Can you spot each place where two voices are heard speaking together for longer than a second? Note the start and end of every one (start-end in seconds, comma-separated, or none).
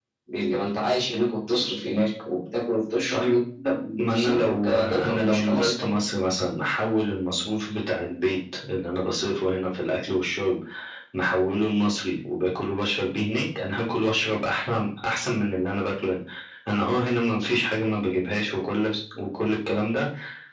4.0-5.8